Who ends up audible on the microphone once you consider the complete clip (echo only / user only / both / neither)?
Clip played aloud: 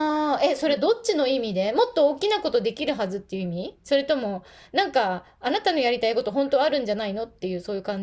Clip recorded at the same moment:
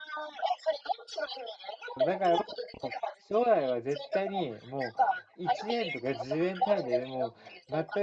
both